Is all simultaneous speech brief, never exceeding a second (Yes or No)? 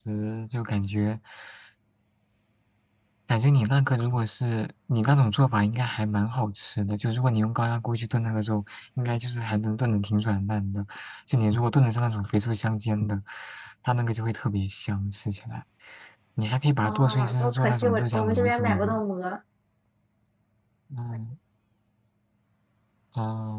No